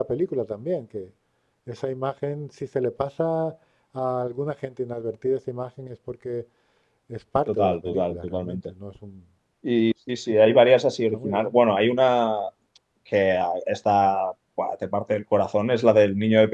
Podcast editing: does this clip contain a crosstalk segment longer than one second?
Yes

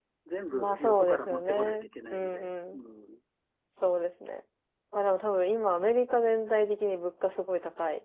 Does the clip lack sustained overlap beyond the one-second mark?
No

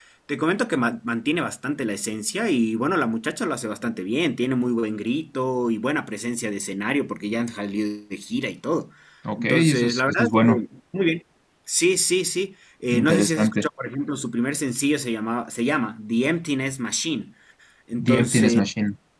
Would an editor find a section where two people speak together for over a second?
Yes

